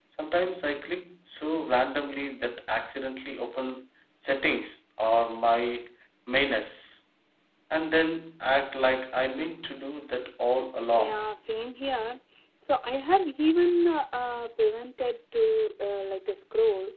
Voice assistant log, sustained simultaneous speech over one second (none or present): none